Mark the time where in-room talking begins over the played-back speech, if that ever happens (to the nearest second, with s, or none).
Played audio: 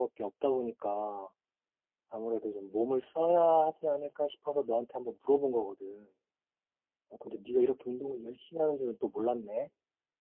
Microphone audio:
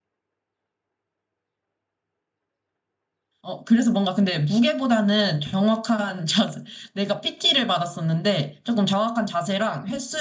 3 s